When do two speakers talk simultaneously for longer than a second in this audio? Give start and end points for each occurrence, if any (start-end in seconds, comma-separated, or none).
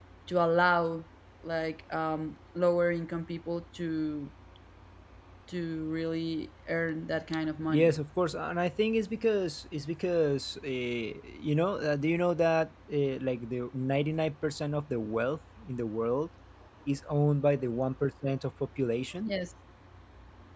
none